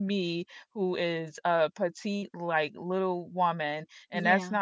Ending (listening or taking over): listening